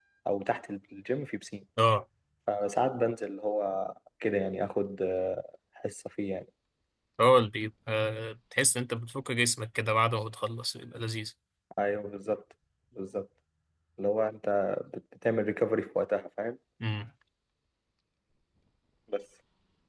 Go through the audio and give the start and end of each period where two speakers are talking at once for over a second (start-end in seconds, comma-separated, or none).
none